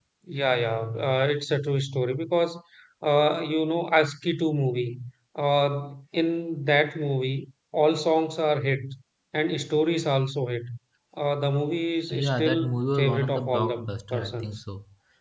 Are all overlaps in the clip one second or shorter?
No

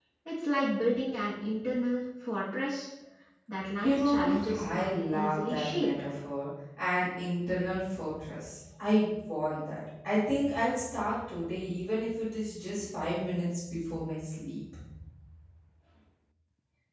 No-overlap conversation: No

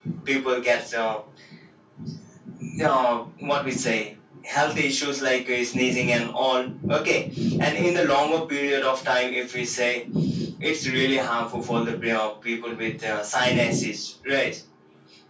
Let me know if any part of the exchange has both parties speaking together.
No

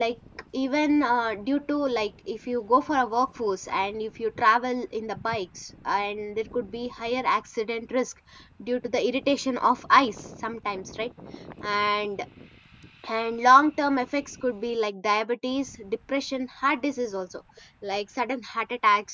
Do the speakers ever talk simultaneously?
No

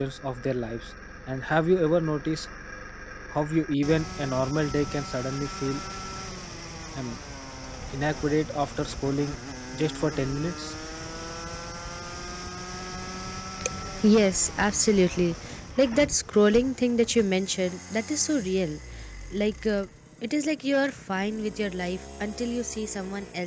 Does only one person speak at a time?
Yes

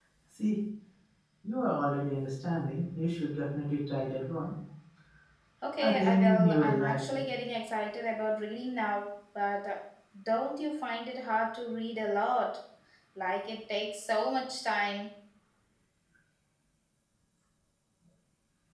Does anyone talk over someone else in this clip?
Yes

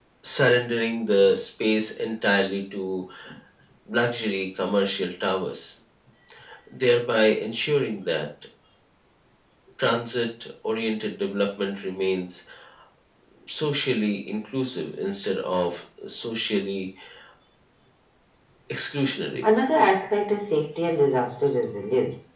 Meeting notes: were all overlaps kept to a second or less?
Yes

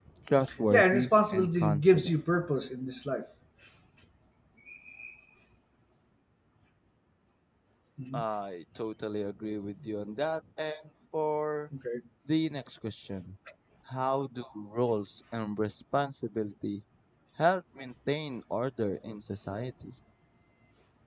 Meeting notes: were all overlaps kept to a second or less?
No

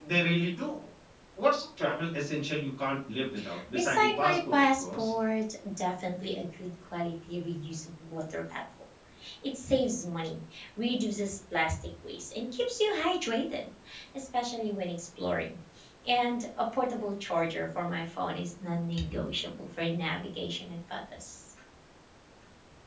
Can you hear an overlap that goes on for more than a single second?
Yes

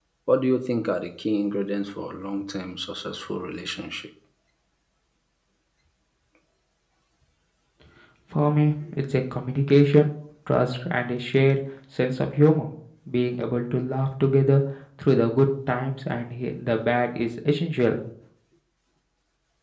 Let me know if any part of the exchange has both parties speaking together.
No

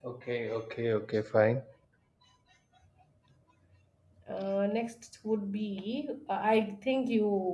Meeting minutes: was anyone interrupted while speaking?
No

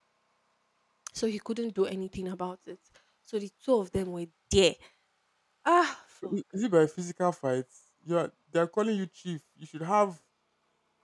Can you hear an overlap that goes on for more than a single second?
No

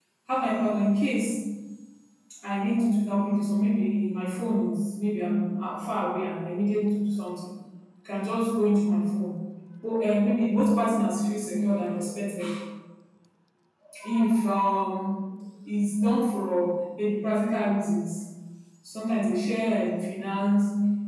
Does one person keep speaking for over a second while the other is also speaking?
No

